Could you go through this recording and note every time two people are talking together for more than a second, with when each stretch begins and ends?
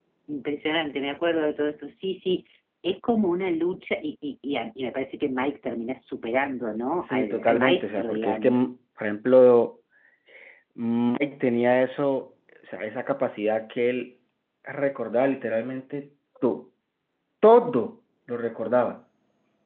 7.0-8.6

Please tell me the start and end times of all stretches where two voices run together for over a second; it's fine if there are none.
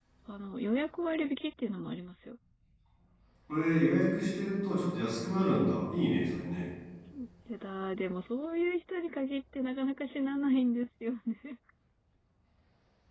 none

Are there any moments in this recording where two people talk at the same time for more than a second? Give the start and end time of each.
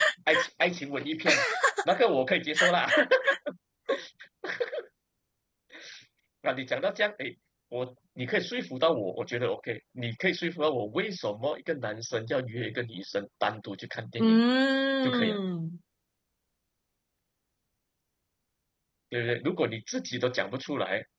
none

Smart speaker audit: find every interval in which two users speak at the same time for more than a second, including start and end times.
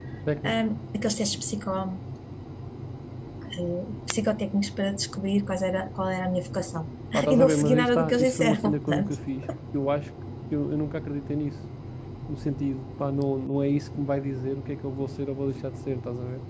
7.3-9.2

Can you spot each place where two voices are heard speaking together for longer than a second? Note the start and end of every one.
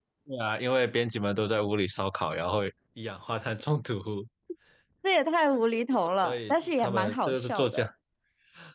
6.2-7.9

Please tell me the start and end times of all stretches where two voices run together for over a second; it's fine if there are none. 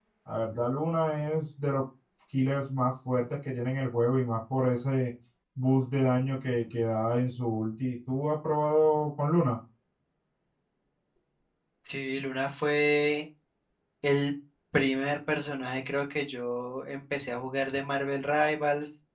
none

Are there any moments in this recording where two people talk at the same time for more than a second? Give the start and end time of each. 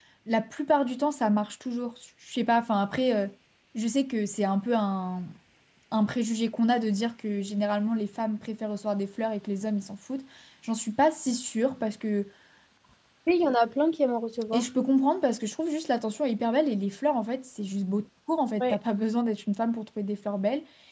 none

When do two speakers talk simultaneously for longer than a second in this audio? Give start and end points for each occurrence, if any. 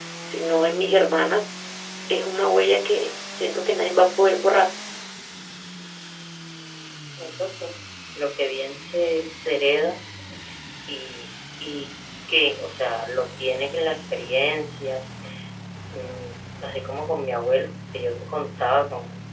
none

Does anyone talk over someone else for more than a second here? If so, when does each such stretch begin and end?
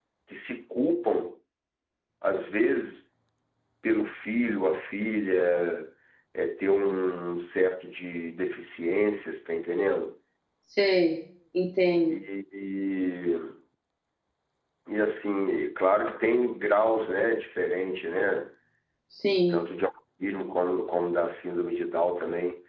none

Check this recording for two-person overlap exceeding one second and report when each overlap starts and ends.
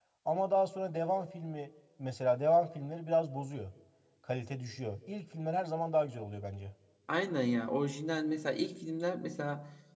none

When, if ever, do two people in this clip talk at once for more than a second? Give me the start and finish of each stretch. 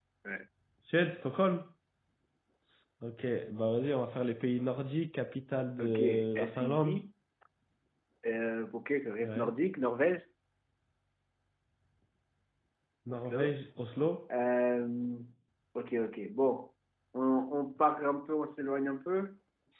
5.8-7.0

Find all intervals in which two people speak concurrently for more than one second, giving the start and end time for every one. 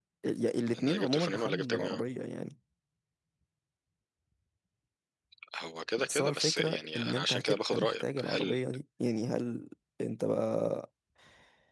0.7-2.0, 6.0-8.6

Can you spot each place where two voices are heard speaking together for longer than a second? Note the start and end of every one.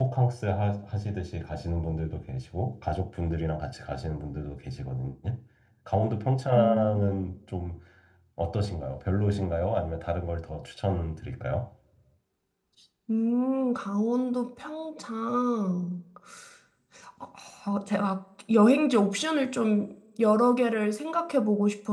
none

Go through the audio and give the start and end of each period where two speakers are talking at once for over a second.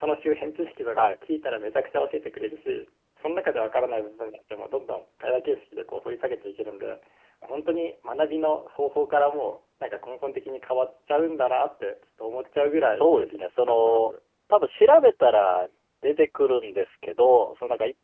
12.8-14.1

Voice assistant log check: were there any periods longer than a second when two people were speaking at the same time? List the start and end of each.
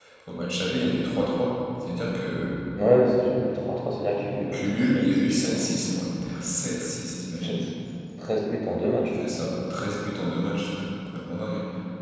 4.4-5.7

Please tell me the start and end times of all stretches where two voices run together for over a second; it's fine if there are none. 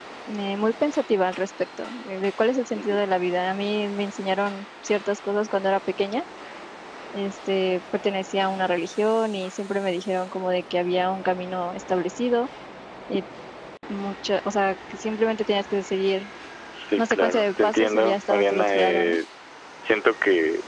17.0-19.2

